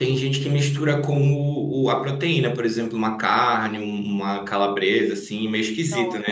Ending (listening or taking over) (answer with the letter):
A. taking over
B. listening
A